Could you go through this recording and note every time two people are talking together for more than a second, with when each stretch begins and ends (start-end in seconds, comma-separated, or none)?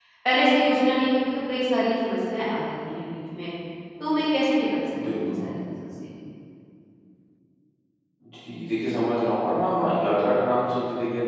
none